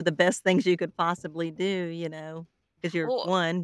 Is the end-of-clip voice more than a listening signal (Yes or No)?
No